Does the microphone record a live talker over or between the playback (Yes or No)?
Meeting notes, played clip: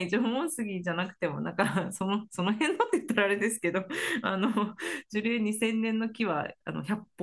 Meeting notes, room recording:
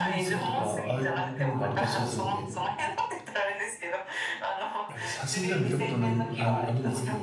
Yes